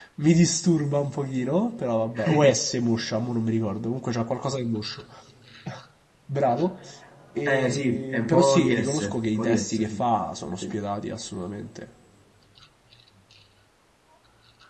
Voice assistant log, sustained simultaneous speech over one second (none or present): present